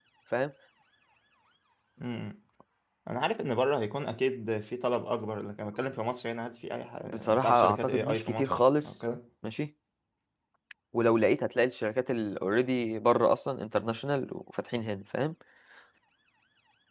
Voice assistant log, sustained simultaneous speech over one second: present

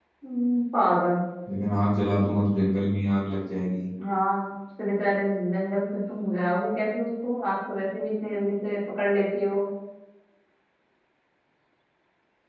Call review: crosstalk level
none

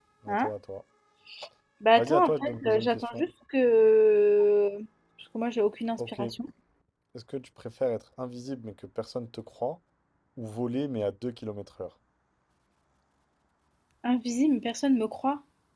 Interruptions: present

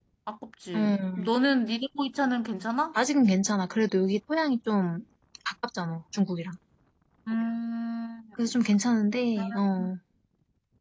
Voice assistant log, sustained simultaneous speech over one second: none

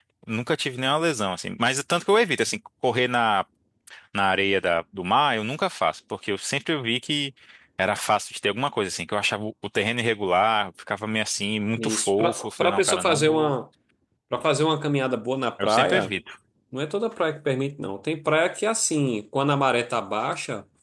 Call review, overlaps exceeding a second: present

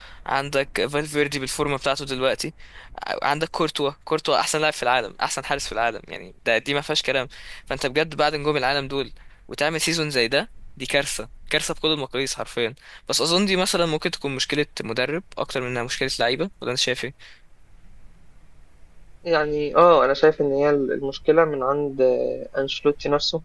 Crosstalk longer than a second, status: none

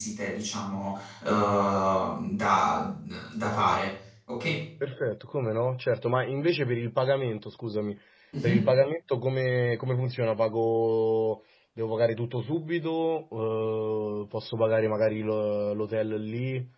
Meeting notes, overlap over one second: none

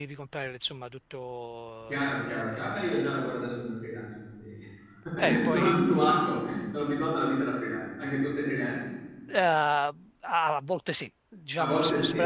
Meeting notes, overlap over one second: present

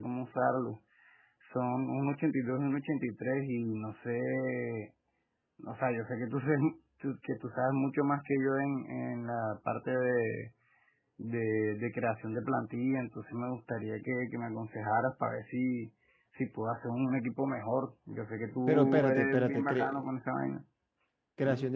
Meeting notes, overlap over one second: present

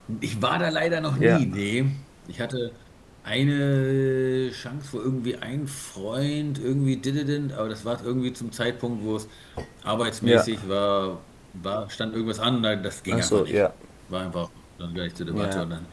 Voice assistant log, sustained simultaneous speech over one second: none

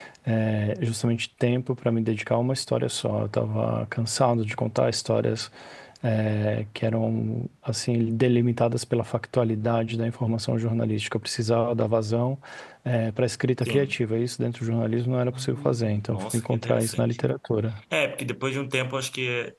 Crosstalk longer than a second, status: present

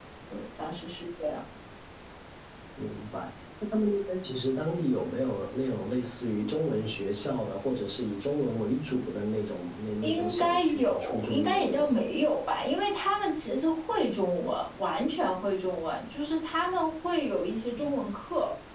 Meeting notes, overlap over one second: present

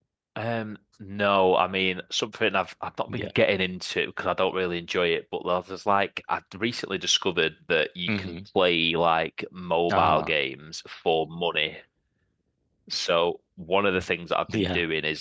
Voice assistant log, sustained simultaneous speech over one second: none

